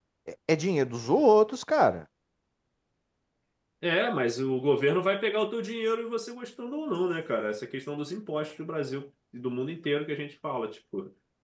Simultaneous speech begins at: none

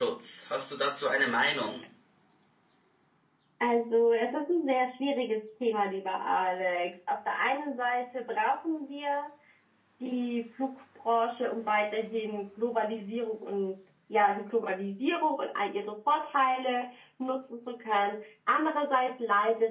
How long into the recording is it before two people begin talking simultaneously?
none

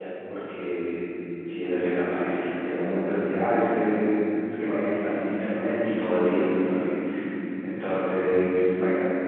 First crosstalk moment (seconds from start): none

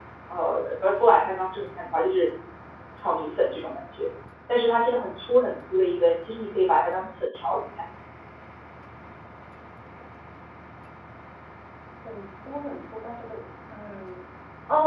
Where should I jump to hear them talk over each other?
none

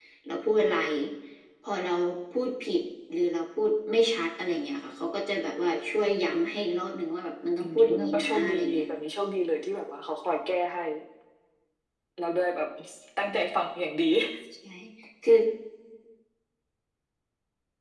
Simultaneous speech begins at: 8 s

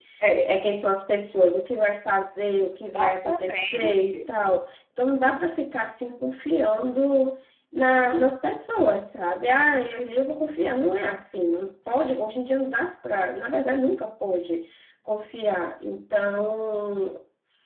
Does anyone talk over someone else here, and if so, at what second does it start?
3 s

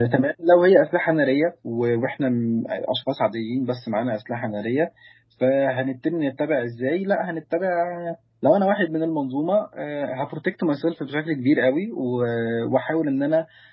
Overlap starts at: none

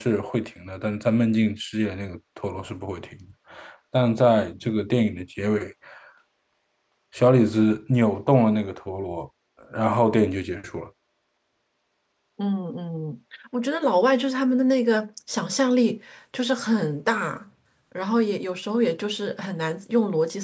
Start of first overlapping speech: none

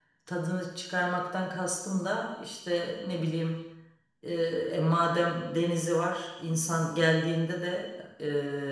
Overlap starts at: none

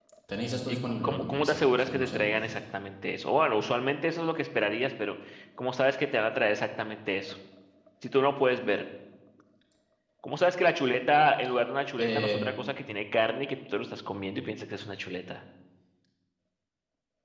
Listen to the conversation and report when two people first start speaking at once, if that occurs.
1 s

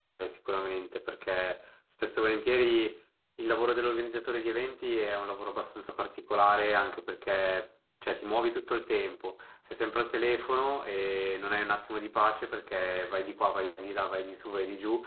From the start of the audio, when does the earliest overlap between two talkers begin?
none

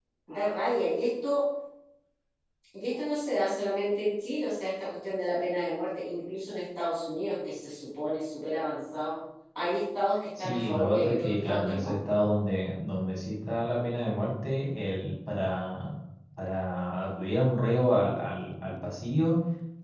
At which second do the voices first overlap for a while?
10 s

